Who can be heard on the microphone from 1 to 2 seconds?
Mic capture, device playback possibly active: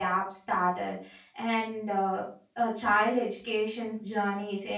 user only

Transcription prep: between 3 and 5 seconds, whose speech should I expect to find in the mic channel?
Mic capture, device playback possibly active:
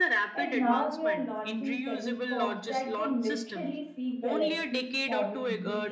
both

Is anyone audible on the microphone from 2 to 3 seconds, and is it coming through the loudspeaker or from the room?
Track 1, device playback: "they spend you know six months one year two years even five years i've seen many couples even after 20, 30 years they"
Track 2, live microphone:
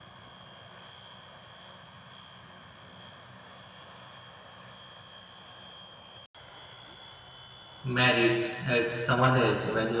neither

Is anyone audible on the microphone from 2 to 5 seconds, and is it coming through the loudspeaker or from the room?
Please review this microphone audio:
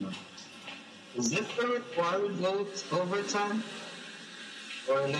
echo only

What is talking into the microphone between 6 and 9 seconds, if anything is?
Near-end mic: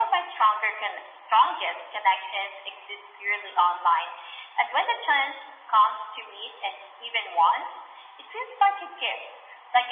echo only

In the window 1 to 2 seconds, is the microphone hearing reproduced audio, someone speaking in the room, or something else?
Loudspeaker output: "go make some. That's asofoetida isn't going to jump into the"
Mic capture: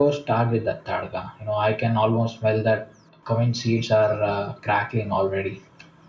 user only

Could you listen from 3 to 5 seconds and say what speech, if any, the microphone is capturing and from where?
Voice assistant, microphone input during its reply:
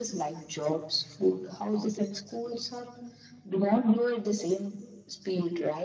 echo only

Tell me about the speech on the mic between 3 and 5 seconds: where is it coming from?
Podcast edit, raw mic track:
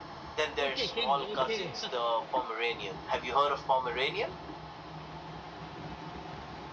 echo only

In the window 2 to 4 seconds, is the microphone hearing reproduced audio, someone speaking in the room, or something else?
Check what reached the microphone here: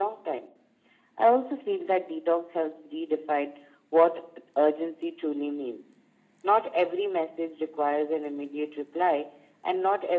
echo only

